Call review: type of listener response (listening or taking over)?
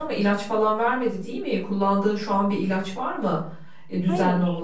taking over